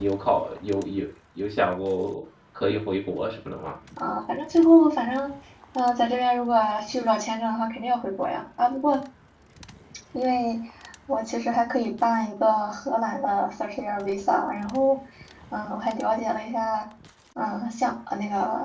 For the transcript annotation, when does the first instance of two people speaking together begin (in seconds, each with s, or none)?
none